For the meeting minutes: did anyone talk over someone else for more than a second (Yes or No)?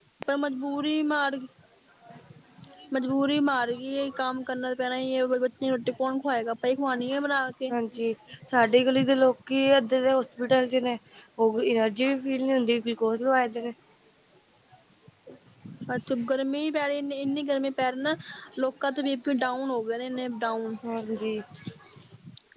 No